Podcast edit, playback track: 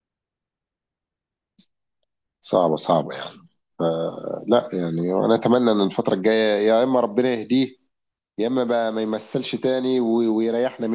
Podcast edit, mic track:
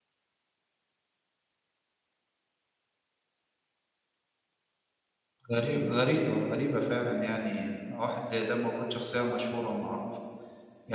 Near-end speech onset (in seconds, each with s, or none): 5.5 s